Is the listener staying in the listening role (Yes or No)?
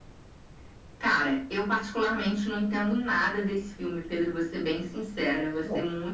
Yes